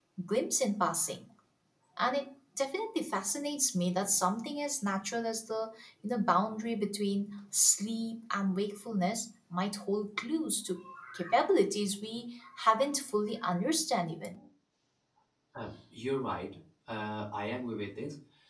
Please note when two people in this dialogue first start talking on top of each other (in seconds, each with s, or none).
none